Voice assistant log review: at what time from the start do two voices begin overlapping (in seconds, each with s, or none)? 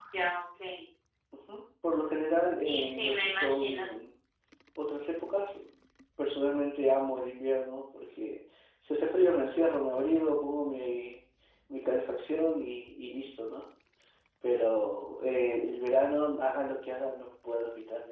2.6 s